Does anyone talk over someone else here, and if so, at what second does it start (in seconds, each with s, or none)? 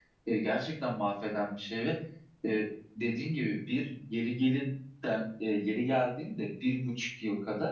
none